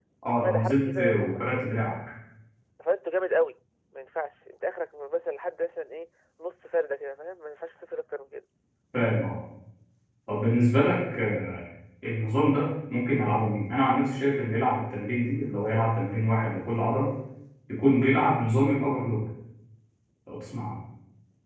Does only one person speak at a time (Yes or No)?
No